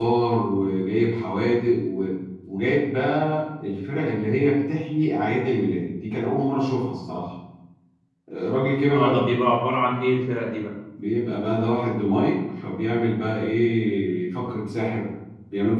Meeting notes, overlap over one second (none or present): none